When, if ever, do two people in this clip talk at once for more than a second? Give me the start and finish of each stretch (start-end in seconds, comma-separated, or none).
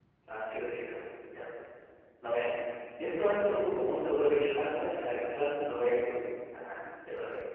none